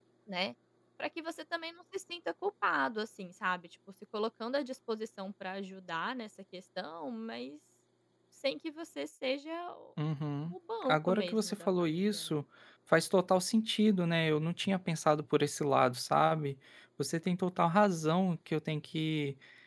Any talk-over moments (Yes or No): Yes